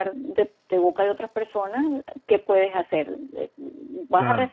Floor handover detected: No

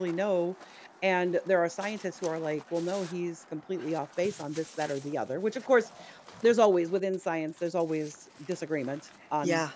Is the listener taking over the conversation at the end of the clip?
Yes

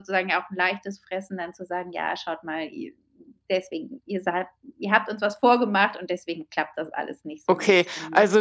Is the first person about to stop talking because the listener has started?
Yes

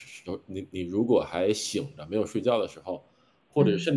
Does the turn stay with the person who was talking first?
Yes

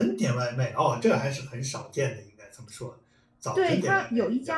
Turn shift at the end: Yes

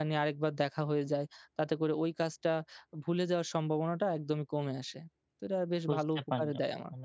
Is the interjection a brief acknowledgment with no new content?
No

